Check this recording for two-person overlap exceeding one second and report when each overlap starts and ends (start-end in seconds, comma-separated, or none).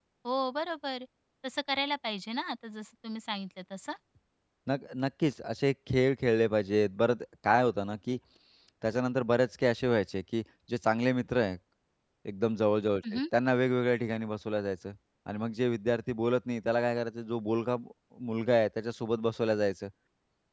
none